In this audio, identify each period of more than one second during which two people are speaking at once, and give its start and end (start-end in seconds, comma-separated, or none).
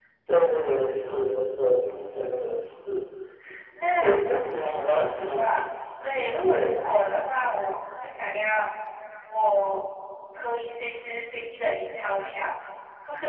4.0-5.5